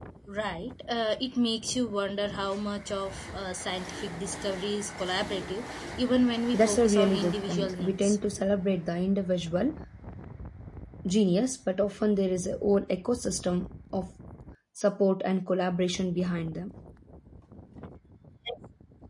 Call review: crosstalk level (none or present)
present